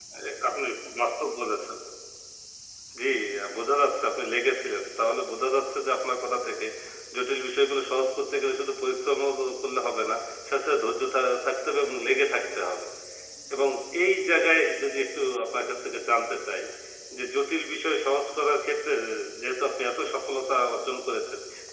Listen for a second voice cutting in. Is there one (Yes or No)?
No